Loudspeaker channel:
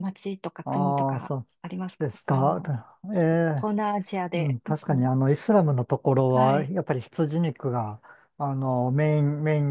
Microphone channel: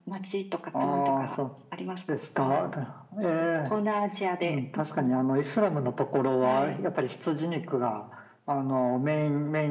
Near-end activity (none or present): none